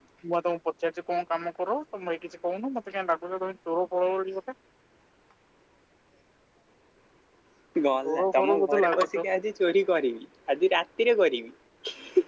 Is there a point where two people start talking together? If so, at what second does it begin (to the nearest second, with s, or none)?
8 s